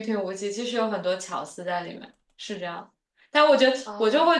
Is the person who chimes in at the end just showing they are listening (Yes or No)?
Yes